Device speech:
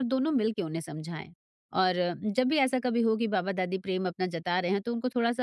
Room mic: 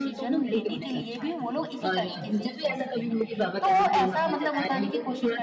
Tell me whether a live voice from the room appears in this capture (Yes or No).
Yes